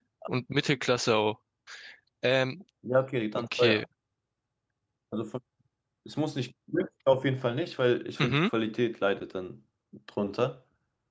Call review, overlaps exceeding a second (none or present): none